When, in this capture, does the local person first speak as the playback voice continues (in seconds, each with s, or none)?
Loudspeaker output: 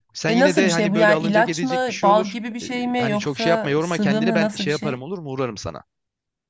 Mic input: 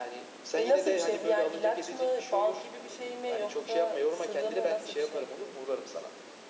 none